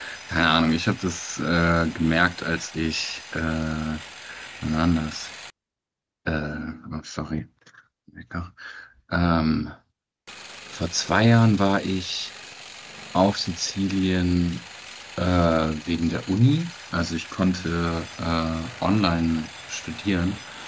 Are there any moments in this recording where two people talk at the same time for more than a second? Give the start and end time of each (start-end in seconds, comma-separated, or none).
none